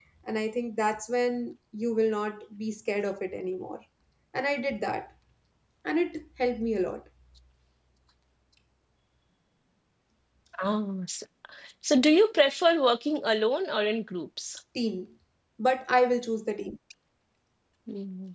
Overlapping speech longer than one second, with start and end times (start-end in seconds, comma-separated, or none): none